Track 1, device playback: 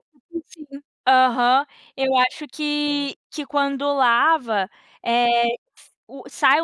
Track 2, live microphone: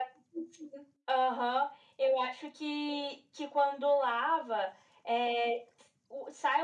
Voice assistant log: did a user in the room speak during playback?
No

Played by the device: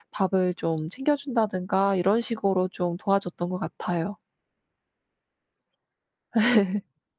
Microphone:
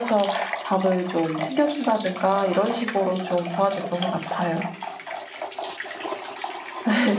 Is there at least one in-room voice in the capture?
No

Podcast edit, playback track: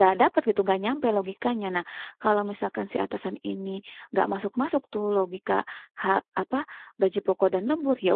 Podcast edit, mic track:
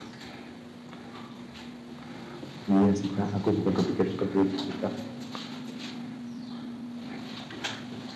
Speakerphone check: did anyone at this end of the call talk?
Yes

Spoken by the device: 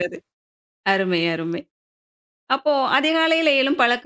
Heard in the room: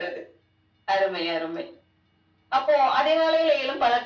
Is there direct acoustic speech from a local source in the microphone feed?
No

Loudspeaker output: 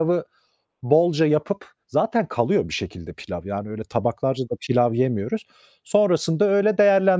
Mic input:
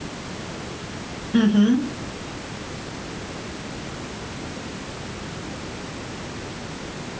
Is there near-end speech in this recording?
Yes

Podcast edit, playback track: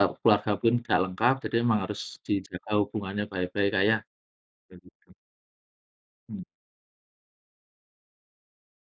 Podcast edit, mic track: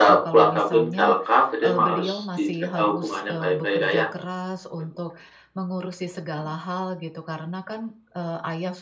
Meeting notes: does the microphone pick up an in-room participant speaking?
Yes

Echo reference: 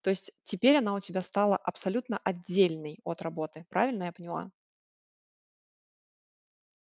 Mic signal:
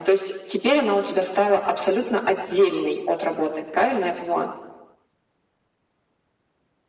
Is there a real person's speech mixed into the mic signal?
No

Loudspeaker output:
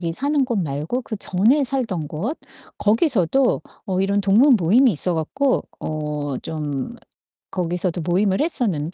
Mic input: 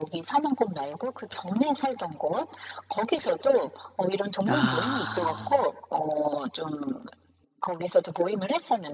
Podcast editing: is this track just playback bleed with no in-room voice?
No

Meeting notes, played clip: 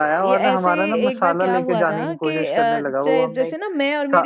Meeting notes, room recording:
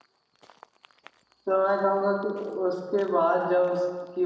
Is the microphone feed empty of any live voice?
No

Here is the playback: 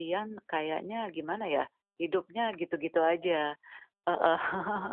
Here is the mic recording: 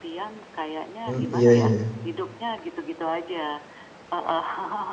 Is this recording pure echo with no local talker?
No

